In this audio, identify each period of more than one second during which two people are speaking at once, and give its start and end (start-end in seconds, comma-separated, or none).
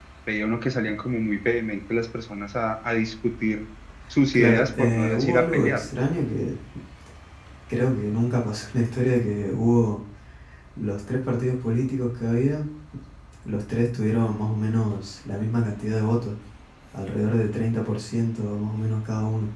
4.3-5.9